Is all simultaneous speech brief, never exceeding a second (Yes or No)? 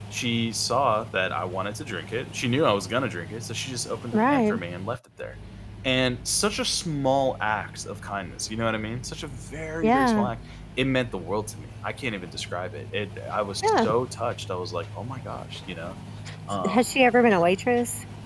Yes